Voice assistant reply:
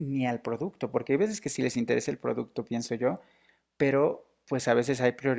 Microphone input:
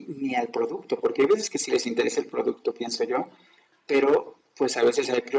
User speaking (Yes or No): No